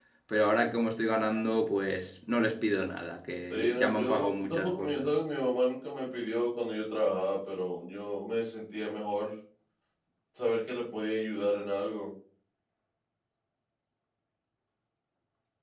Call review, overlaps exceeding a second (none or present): present